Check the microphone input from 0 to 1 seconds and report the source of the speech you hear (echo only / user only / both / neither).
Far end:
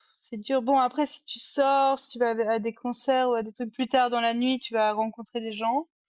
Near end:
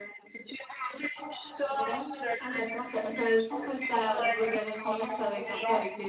echo only